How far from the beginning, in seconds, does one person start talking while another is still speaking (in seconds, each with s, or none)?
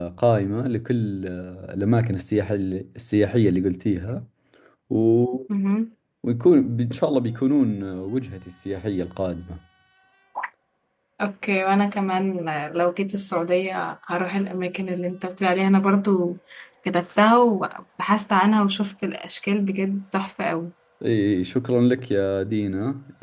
none